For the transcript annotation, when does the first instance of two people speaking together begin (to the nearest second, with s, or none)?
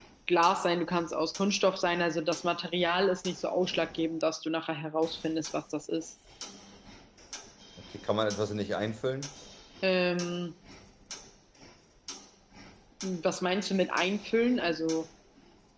none